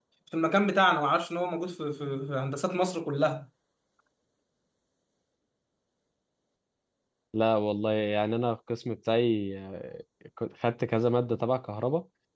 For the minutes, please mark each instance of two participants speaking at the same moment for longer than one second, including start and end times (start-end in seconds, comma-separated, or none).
none